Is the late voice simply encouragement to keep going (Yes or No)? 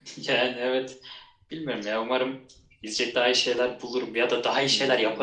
No